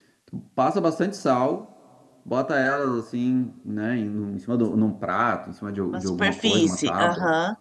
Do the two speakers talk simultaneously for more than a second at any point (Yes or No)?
Yes